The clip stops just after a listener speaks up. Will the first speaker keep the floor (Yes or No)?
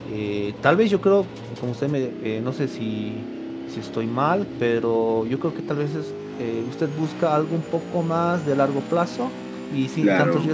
No